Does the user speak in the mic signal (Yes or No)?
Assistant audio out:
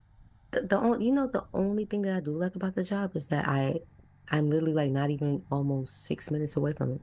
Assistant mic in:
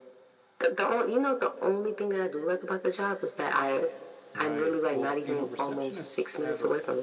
Yes